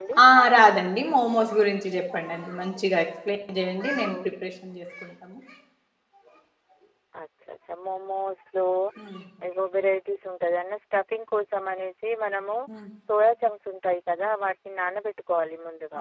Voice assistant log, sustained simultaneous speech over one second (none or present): none